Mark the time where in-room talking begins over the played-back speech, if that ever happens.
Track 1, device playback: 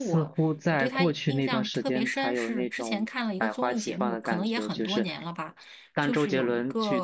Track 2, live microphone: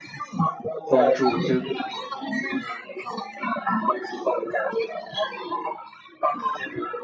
0.8 s

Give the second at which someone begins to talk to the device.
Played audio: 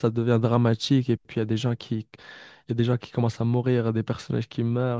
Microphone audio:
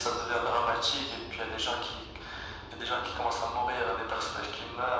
none

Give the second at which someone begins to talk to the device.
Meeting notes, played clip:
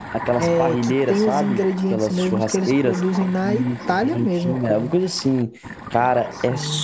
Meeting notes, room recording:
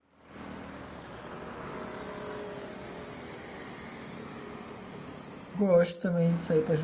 5.5 s

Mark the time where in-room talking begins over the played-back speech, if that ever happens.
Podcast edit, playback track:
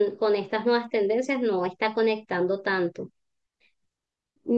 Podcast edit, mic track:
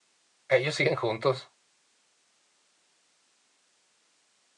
0.5 s

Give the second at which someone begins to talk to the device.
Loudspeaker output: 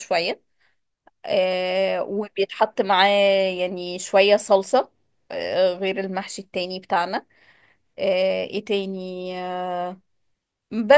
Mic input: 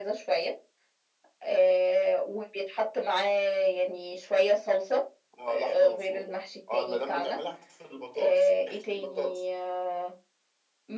5.4 s

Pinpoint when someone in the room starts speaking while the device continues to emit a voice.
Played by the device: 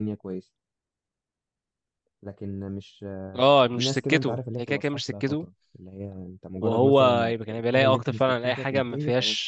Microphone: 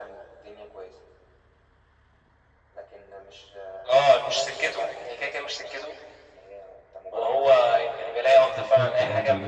8.5 s

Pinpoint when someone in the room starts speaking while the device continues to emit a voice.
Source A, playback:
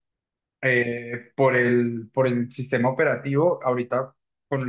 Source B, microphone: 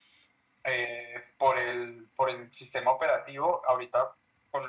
none

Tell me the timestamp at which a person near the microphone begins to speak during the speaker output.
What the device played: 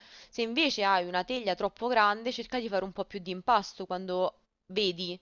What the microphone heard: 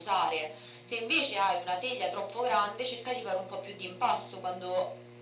none

